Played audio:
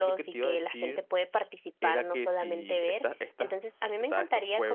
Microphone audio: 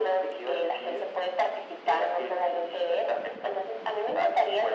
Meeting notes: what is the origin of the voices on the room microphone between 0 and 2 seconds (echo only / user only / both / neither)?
echo only